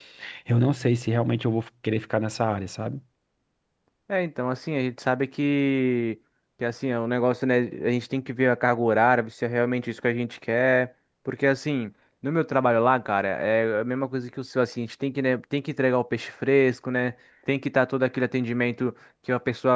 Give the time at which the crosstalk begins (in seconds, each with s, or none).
none